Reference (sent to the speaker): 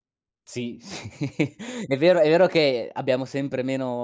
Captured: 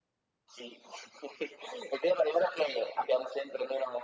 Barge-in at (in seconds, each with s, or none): none